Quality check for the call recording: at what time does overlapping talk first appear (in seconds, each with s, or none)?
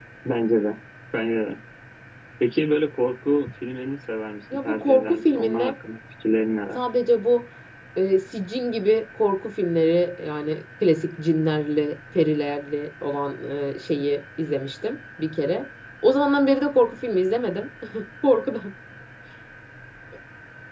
4.5 s